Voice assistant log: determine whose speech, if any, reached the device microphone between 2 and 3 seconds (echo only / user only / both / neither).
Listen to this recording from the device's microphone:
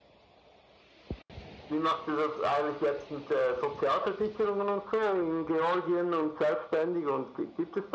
echo only